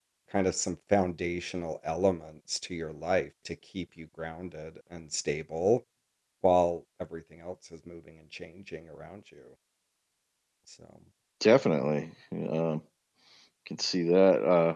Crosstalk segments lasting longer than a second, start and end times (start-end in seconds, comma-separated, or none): none